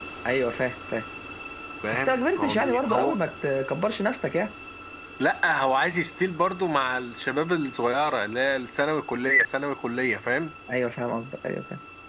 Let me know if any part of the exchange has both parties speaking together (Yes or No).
Yes